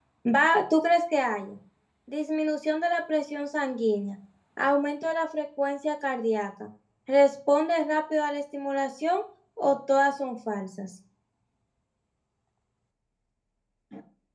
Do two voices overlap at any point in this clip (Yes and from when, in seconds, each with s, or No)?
No